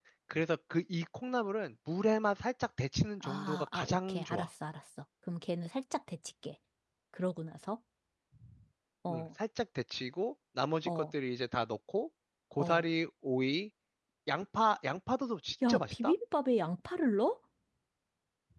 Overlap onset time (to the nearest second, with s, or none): 3 s